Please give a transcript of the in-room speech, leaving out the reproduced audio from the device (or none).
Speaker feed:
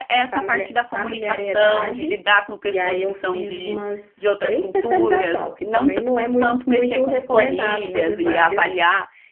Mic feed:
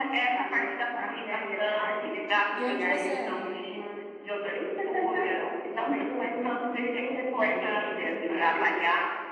De onde você é?